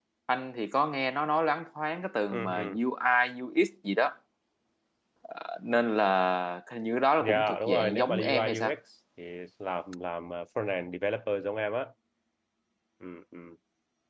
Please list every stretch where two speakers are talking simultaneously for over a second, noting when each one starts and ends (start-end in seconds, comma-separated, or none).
7.2-8.7